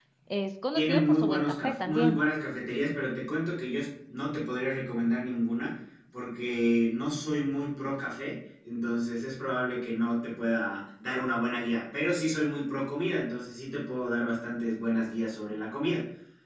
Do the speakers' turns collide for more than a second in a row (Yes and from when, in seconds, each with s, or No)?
Yes, from 0.7 s